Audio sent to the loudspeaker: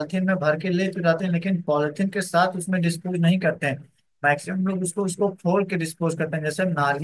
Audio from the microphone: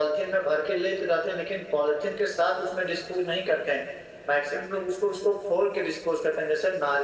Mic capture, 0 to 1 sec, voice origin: echo only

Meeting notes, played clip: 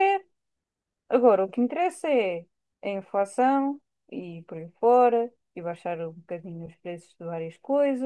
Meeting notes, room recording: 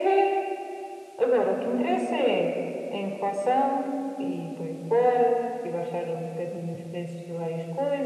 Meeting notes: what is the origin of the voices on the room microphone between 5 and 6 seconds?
echo only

